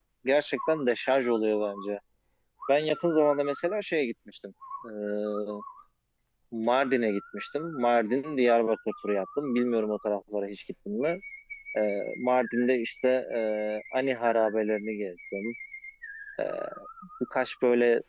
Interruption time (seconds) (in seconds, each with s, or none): none